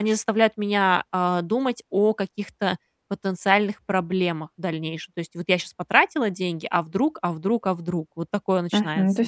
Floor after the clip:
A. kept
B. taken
B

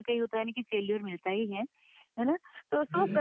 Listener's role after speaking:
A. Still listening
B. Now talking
A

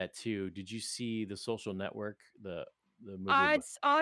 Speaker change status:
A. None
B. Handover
B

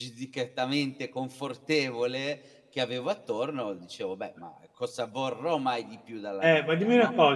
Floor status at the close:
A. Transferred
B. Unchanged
A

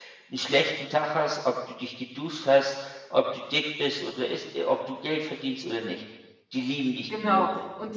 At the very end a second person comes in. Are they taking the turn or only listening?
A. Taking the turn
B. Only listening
A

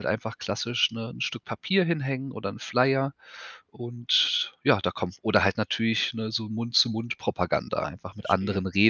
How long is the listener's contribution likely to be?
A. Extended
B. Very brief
A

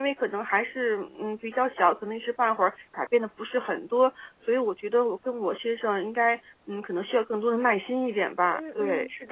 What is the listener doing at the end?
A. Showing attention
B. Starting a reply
B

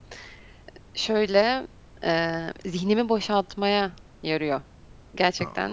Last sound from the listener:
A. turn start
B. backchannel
A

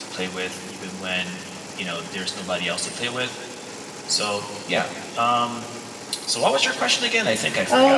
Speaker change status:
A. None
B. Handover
B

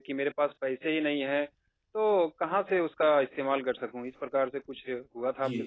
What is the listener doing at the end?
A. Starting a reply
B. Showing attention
A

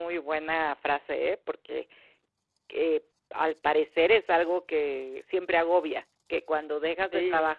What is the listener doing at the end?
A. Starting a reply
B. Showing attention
B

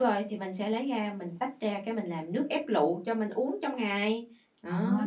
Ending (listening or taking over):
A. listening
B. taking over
B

